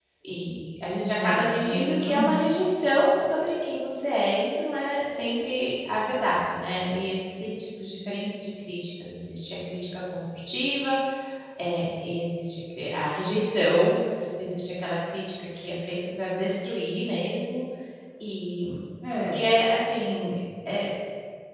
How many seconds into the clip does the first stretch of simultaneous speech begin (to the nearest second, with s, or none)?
1 s